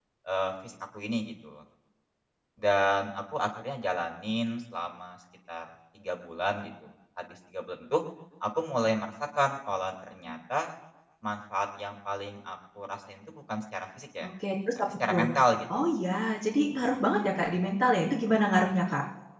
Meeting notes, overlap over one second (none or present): none